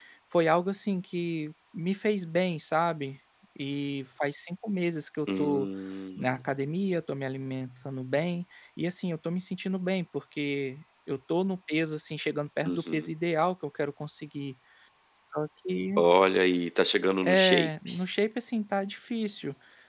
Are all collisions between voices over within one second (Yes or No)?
Yes